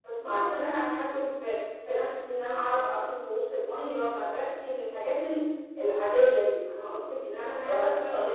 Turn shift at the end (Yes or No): Yes